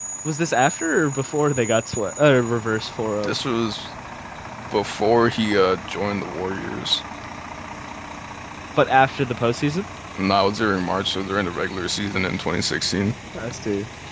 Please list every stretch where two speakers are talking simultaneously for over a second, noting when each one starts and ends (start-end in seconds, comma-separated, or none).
none